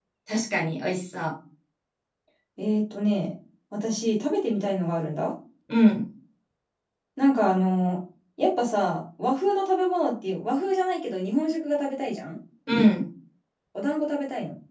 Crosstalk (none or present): none